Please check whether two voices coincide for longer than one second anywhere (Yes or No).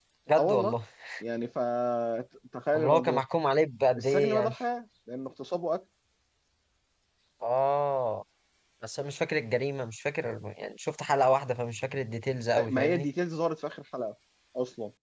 No